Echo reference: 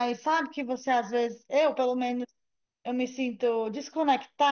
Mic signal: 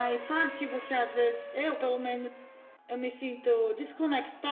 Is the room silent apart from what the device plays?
Yes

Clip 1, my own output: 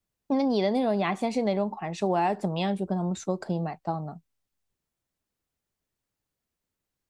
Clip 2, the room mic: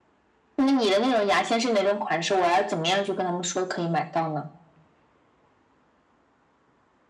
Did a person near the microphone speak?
No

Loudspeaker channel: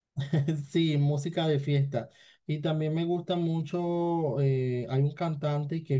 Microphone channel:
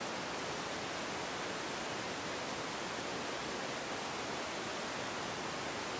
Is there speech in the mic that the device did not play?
No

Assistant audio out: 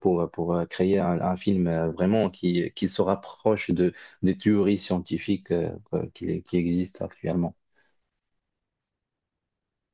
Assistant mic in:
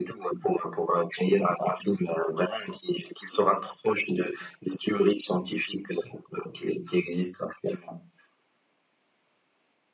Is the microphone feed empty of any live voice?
Yes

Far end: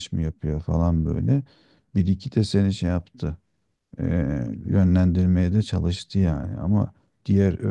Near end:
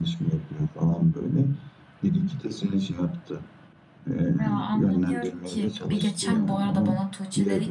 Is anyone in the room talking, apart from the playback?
Yes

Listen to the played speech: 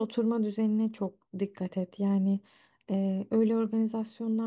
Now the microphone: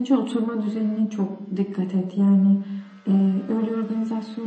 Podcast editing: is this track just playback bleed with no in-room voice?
Yes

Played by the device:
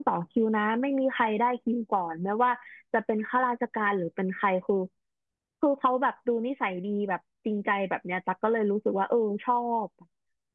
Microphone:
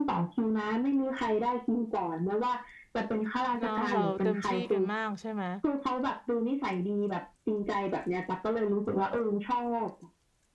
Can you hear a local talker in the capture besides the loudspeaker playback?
Yes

